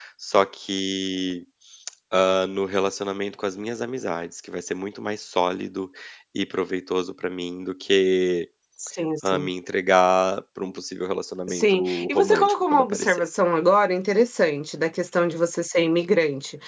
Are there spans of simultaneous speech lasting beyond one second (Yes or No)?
Yes